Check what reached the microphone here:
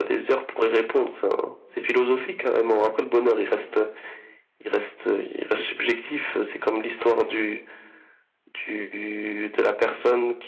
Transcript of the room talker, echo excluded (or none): none